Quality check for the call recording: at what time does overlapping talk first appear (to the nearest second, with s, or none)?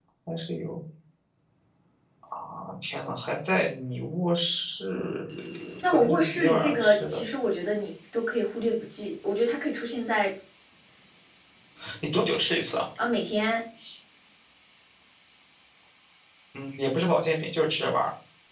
6 s